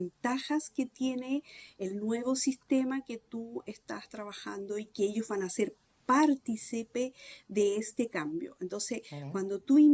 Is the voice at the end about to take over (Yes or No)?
No